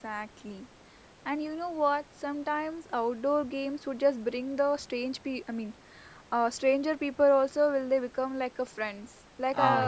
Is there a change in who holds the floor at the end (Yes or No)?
No